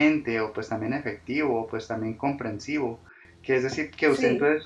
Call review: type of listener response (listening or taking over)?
listening